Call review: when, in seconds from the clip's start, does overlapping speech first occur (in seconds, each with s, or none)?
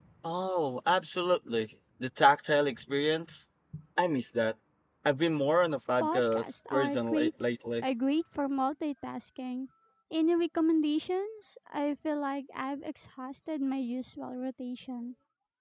6.0 s